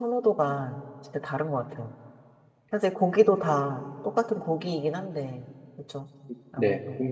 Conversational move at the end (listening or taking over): taking over